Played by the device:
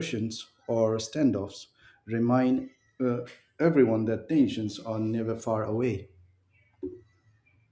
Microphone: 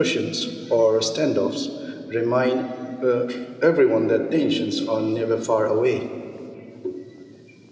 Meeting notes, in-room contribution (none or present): none